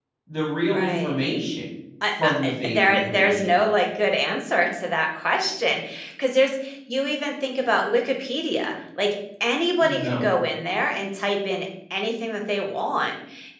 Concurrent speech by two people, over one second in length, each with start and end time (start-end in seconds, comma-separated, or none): 2.2-3.5